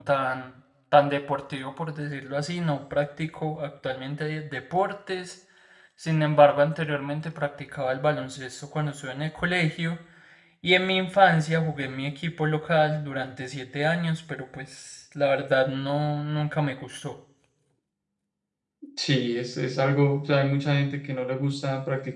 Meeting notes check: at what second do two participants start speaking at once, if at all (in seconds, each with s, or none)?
none